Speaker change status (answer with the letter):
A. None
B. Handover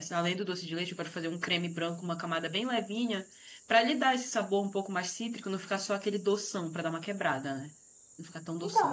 B